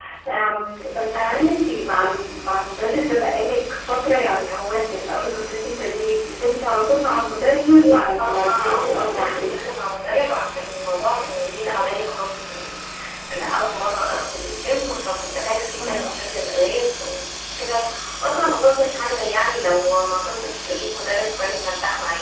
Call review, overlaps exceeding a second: present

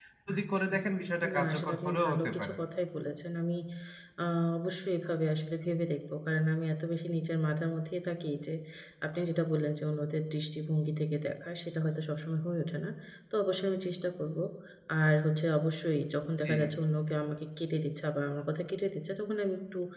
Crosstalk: present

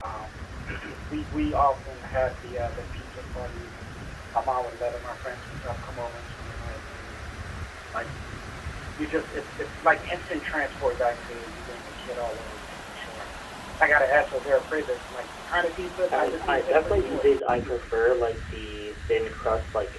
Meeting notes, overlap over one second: present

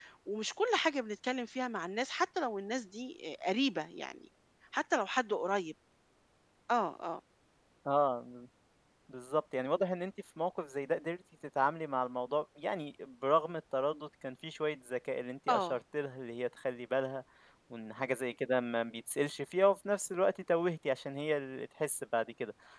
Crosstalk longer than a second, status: none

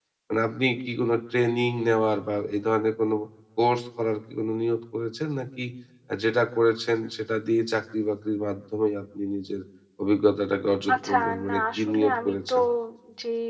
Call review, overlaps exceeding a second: present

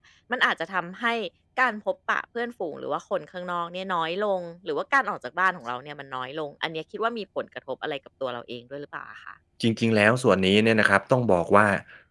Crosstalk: none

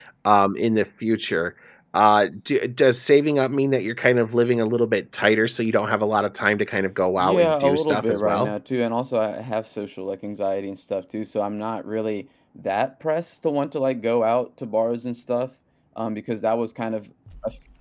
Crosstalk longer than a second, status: present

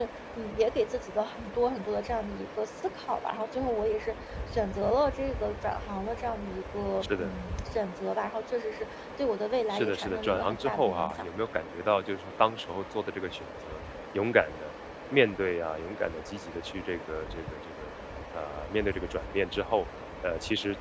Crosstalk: present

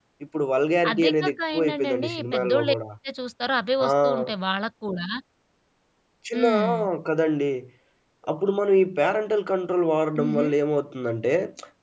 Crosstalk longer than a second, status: present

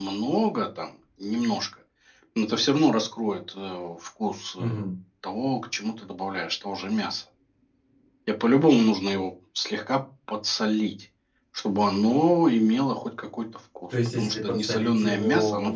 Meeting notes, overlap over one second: present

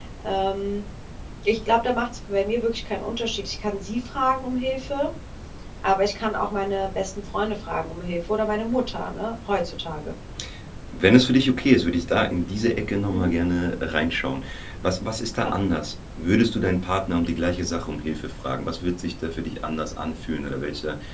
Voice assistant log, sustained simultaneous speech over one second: none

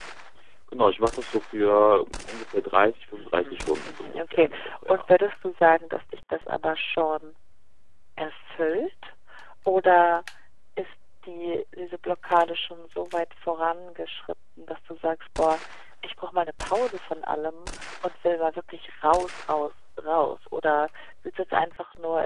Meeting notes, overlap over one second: present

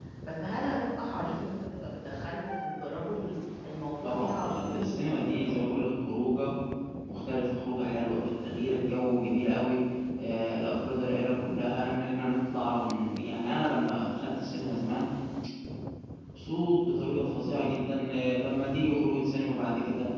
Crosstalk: present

